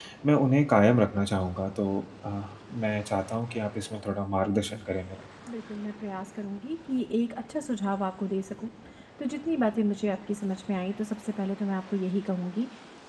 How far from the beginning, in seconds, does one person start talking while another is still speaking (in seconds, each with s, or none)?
none